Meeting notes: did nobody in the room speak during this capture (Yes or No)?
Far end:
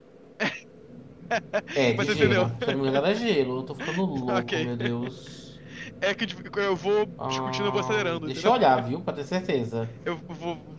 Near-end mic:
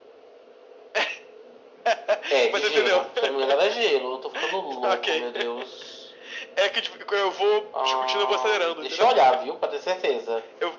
Yes